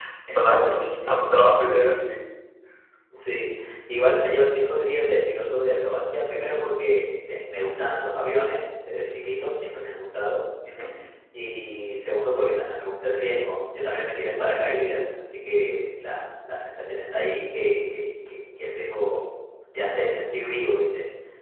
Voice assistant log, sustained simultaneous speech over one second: present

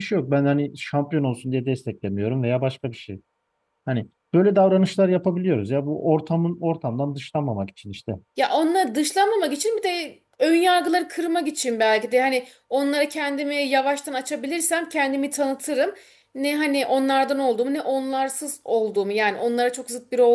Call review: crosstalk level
none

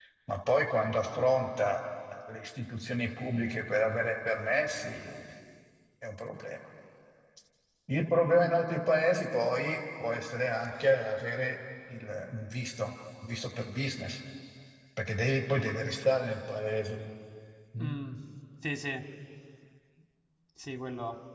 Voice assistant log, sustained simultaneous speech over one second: none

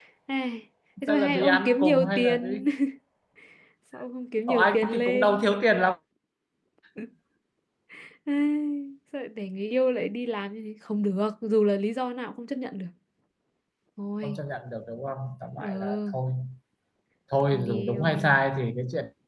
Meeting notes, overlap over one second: present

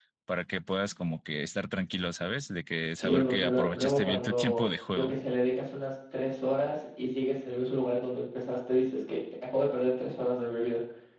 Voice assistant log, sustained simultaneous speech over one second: present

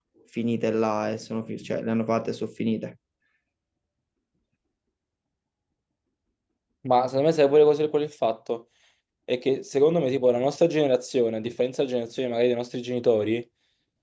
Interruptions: none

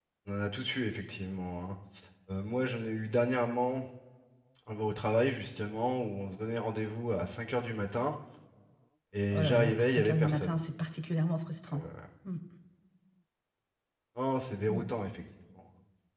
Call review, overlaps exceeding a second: present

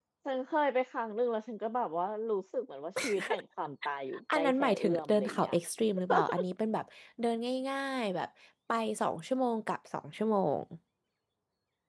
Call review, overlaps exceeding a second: present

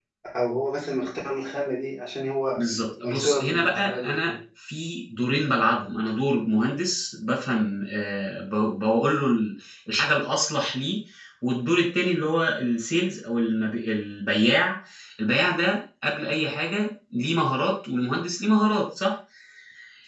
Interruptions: present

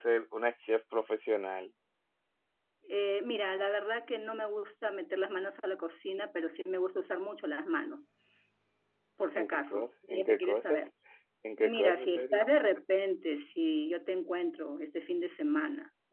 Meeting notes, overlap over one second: present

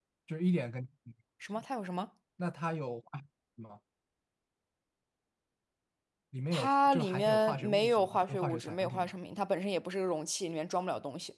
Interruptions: present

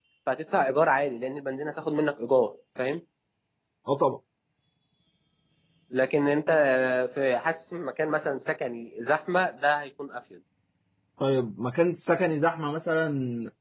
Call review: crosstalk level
none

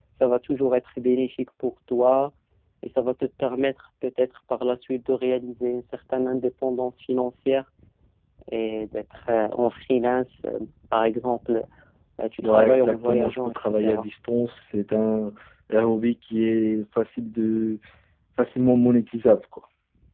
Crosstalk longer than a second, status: present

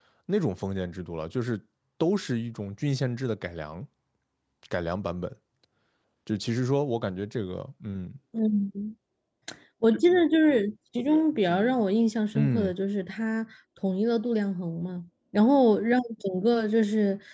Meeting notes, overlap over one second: none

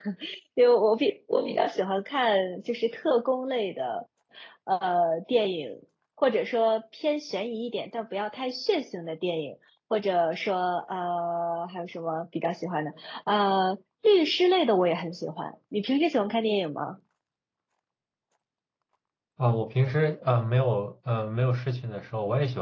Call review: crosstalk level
none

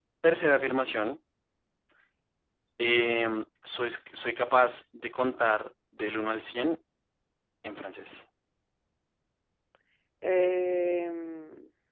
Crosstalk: none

